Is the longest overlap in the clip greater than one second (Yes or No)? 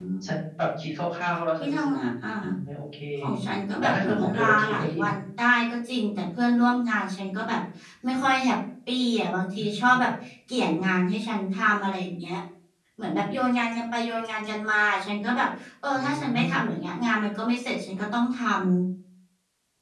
Yes